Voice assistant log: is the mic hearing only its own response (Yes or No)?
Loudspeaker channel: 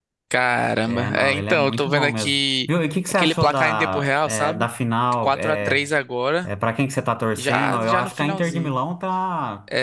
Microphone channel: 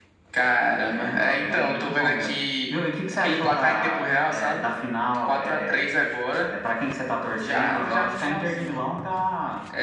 Yes